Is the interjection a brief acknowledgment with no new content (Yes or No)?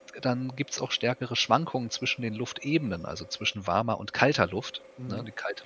No